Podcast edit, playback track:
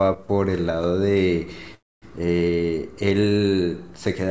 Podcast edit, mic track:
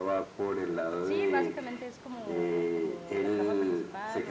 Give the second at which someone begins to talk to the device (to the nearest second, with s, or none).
1 s